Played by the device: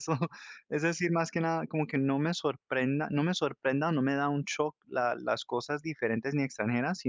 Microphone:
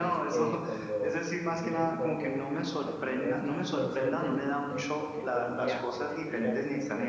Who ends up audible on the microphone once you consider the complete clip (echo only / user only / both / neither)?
both